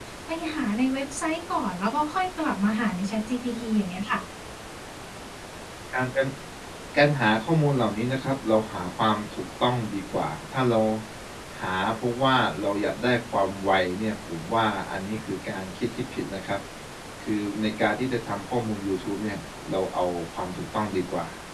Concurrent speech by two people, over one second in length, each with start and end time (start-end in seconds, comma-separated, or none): none